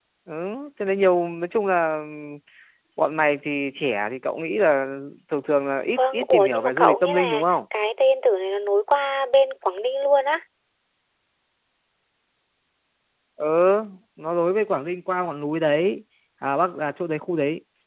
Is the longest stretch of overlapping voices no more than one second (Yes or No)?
No